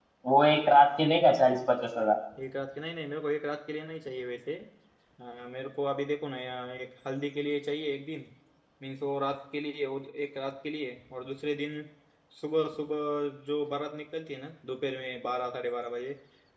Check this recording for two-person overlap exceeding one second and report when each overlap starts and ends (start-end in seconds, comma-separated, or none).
none